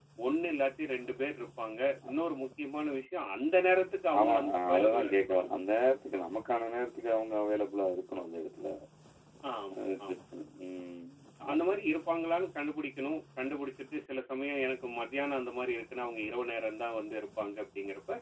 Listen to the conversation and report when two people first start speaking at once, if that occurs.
4 s

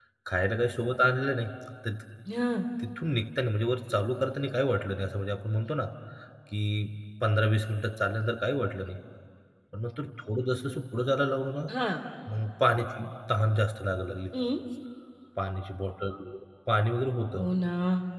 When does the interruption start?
none

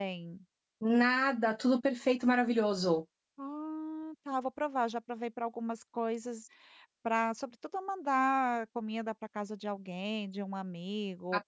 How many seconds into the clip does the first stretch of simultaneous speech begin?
none

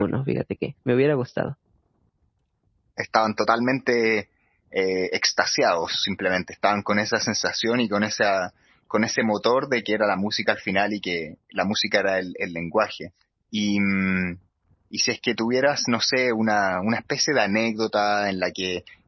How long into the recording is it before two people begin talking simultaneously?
none

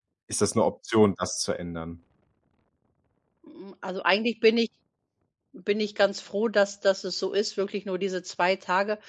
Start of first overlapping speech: none

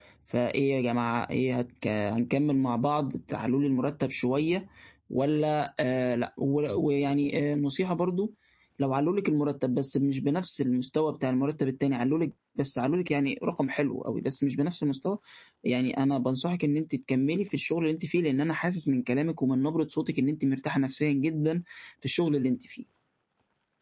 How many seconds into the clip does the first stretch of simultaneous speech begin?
none

